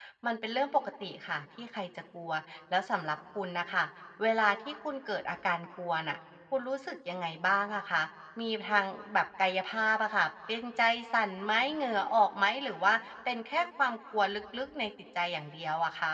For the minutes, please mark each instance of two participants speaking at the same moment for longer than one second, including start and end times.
none

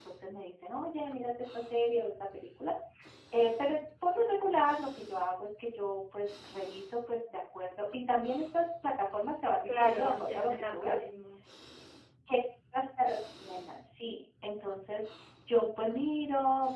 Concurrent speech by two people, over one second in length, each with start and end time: 9.7-11.1

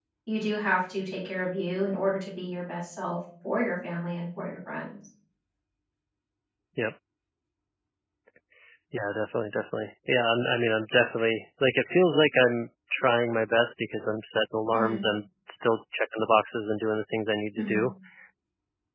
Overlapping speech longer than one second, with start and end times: none

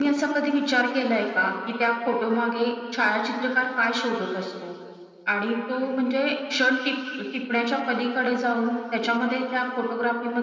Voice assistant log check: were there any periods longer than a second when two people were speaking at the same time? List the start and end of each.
none

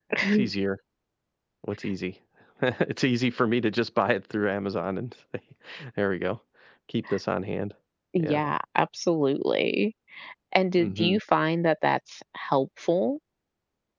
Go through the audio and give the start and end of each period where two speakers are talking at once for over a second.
none

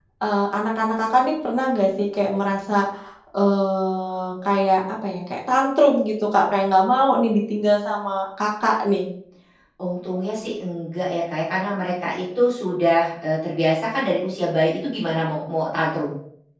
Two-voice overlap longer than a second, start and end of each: none

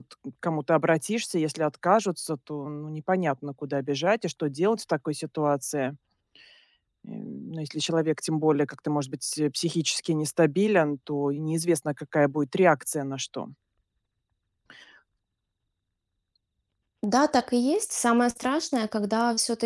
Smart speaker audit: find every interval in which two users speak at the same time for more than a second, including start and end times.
none

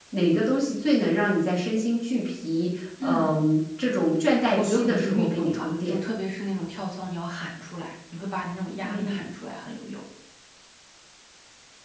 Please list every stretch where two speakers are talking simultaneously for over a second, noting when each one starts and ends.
4.6-6.0

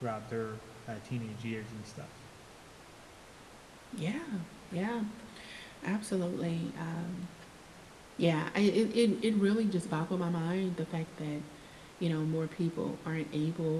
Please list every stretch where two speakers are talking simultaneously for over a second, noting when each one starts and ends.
none

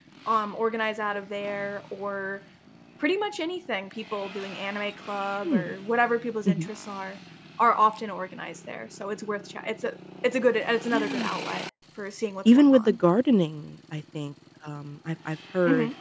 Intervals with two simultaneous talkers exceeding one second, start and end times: none

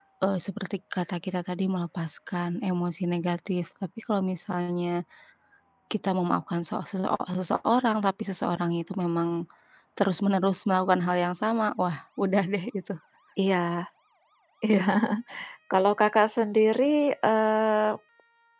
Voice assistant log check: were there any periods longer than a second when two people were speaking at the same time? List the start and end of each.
none

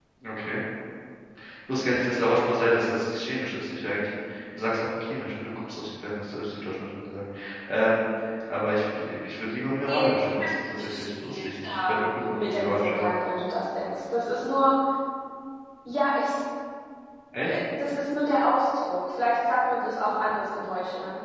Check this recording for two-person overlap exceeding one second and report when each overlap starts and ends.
10.8-13.1

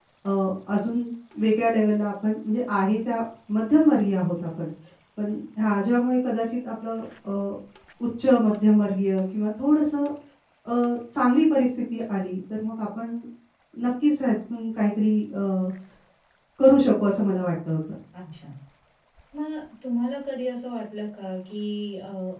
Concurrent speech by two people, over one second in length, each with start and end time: none

